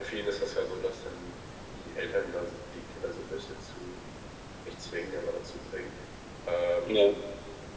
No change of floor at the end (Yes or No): Yes